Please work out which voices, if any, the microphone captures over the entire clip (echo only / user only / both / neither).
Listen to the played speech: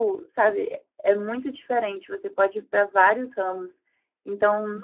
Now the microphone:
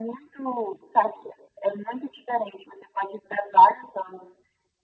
echo only